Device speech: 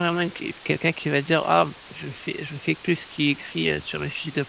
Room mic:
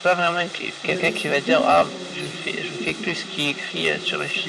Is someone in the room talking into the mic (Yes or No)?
Yes